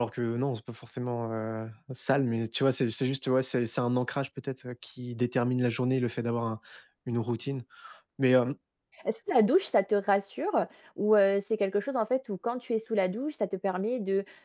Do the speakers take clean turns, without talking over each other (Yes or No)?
Yes